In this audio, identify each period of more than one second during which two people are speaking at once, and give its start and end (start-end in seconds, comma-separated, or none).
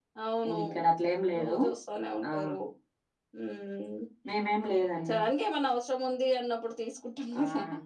none